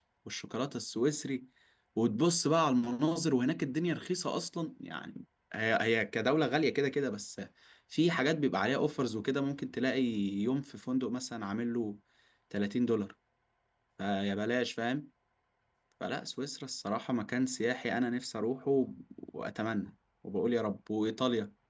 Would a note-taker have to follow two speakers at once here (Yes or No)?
No